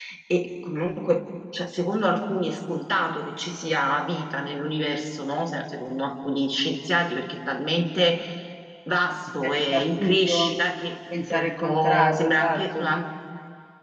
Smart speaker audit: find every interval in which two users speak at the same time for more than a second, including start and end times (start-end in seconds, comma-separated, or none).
9.4-10.7, 11.3-12.9